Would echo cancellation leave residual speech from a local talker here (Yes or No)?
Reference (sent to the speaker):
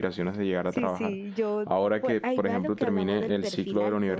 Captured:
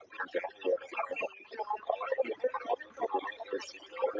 No